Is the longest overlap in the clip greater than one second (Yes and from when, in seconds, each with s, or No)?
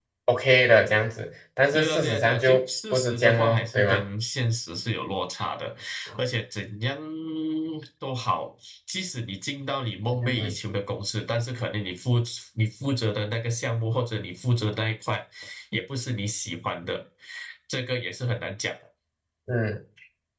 Yes, from 1.7 s